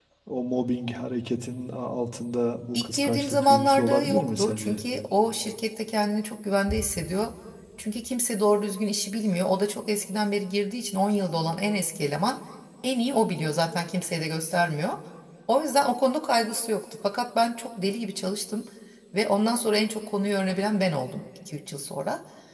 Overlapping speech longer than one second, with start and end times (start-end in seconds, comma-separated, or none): 2.7-4.8